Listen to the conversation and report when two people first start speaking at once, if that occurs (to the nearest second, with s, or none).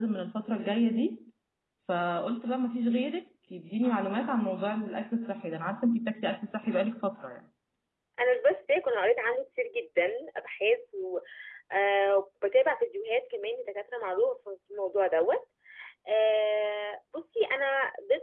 none